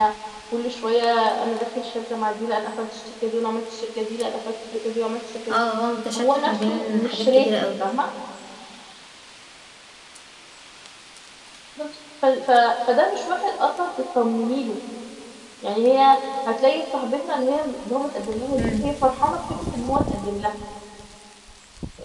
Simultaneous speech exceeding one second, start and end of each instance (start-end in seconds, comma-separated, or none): 6.1-7.7